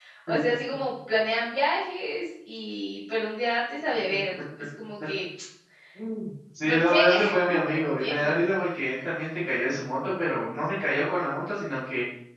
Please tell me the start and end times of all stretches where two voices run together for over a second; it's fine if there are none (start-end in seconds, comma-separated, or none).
6.6-8.3